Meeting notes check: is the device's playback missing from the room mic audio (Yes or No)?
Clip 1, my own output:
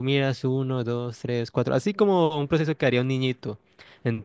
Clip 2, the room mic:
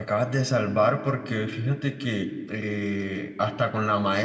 Yes